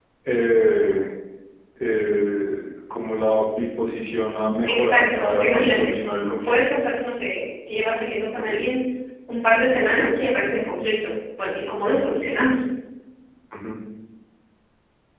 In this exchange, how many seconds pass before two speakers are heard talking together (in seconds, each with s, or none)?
4.6 s